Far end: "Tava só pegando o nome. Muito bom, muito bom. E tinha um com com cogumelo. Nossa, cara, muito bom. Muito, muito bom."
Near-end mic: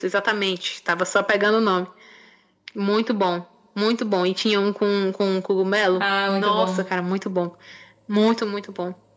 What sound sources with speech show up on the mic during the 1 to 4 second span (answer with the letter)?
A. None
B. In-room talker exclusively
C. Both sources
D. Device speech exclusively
D